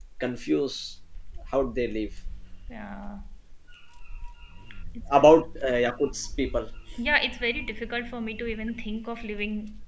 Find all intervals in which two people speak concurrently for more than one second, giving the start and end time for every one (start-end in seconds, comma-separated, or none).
none